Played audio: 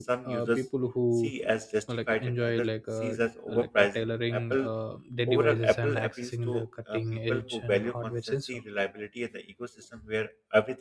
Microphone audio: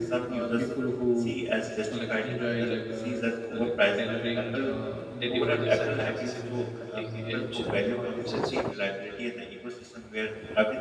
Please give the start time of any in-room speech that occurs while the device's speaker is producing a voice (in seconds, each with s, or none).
none